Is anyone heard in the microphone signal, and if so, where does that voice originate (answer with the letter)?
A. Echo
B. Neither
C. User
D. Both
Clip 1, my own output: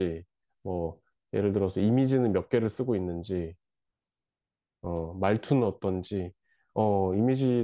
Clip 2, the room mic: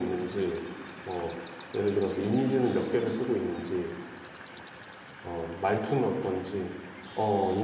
A